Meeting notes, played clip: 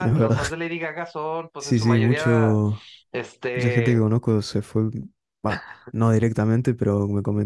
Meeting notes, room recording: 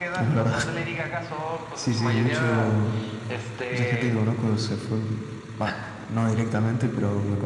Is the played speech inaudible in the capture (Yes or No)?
No